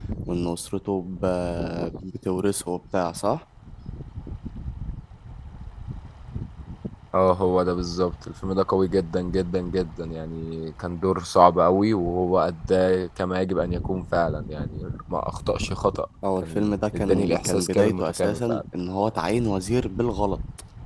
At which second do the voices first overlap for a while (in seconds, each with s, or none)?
16.2 s